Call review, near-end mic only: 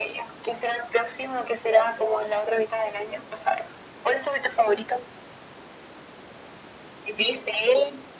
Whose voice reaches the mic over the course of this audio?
echo only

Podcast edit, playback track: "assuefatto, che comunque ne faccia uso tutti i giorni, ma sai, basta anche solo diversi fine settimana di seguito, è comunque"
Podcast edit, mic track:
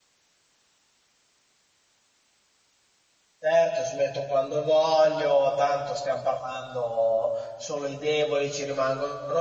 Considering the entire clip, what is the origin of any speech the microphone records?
user only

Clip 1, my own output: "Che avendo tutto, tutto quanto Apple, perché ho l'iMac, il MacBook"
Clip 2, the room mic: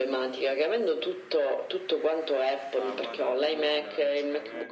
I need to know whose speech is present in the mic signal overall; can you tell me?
both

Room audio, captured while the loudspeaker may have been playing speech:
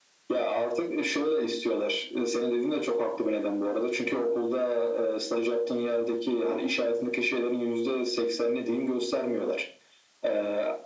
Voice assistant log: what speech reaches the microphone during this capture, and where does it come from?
echo only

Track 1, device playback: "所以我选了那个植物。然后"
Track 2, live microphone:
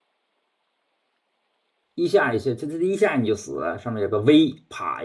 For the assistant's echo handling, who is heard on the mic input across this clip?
user only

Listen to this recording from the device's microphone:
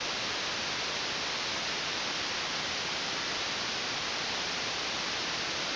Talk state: neither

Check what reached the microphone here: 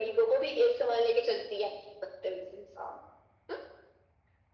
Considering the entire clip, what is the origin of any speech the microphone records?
echo only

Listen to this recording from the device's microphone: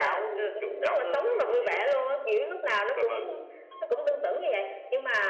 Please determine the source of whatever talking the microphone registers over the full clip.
echo only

